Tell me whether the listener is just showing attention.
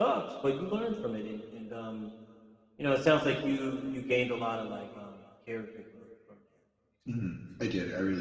No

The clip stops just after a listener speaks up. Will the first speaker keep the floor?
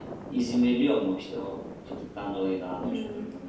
No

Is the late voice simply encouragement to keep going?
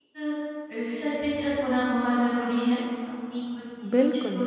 Yes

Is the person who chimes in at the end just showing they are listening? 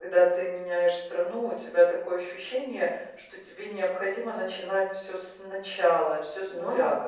Yes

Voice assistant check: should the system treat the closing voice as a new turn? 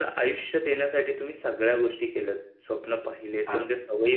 No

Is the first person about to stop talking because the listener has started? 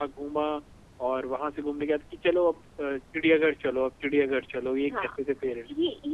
Yes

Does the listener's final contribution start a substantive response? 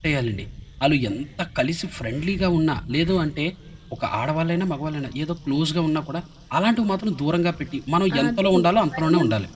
Yes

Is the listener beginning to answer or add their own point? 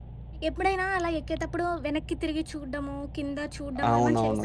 Yes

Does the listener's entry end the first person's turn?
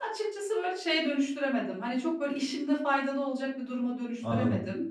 Yes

